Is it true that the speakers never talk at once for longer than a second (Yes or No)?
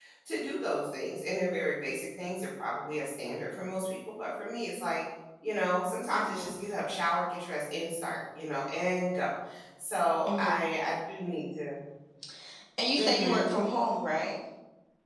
Yes